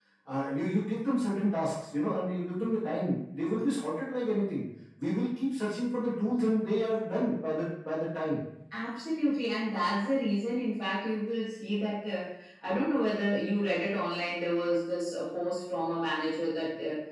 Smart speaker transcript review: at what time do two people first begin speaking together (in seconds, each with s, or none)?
none